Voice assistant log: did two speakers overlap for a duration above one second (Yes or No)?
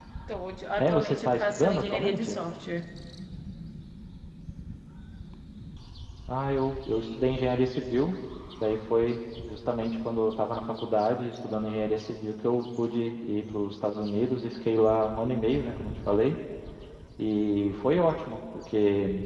Yes